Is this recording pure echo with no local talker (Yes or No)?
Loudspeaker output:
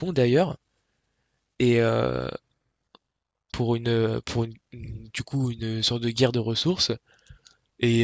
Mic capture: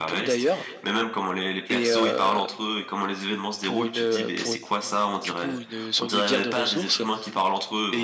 No